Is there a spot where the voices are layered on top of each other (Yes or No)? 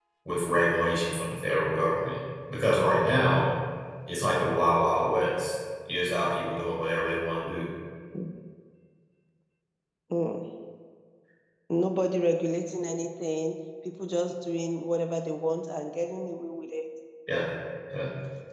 No